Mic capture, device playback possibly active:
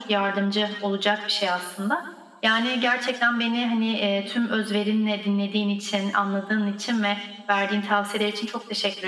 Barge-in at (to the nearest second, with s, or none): none